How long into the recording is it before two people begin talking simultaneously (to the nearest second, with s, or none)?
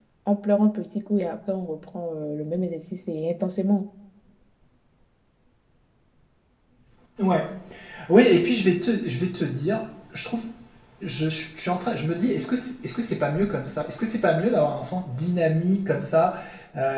none